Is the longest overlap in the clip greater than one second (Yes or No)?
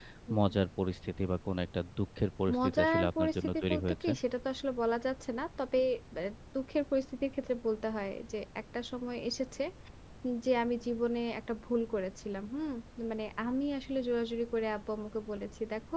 Yes